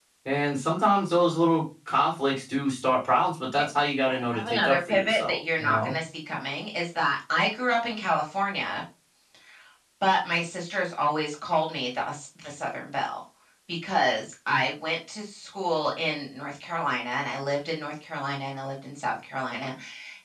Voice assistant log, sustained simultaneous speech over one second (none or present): present